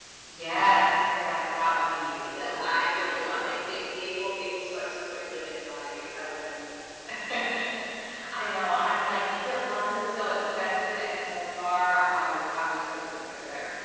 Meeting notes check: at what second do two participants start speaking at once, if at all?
2.2 s

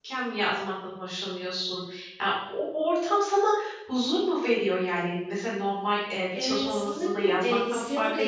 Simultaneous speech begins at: 6.3 s

